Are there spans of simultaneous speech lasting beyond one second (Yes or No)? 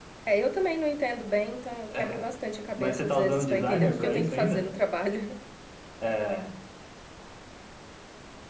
Yes